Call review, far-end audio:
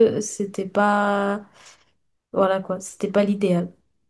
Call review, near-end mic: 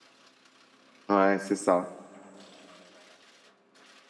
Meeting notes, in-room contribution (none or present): present